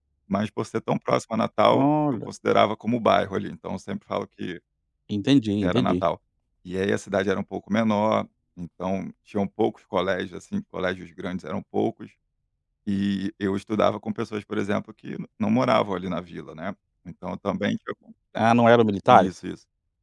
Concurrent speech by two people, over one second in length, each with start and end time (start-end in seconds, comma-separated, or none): none